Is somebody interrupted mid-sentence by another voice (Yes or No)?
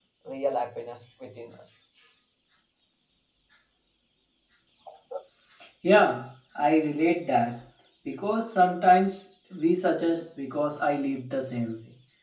No